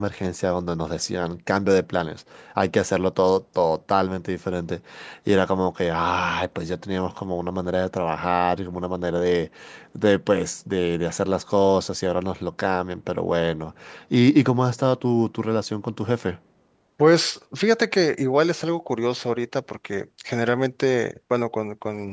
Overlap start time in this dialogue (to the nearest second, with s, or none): none